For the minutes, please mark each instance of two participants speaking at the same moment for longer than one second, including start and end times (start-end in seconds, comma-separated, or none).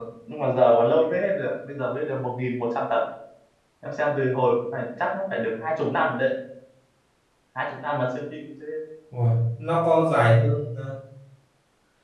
none